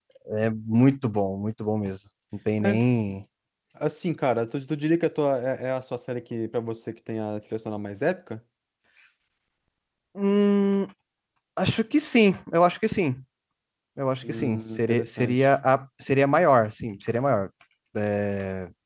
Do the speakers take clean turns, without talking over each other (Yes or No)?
No